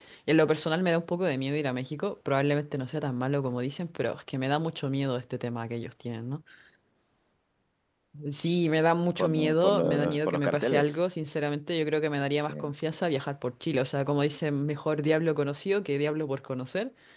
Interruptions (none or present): present